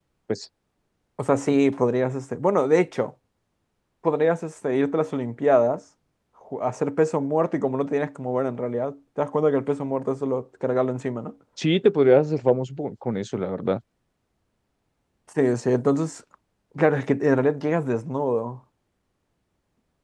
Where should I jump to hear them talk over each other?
none

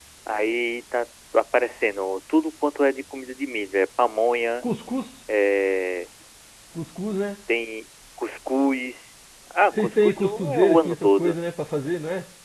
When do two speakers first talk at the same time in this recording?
9.7 s

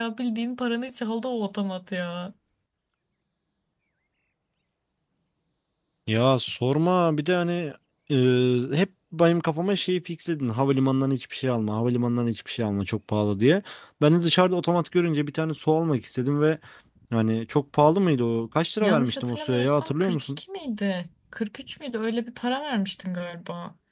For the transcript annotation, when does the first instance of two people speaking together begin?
18.8 s

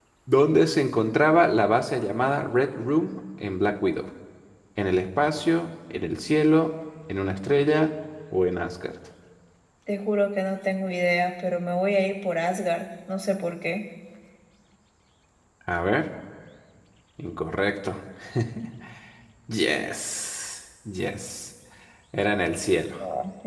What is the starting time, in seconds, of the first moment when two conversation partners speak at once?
none

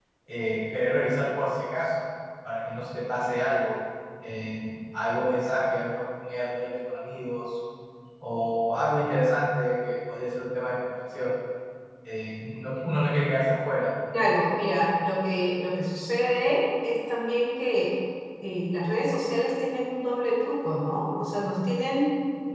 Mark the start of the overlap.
none

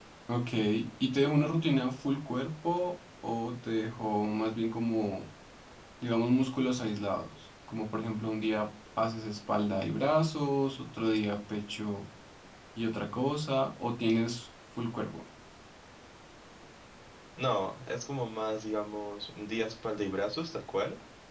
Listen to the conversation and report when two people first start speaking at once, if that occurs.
none

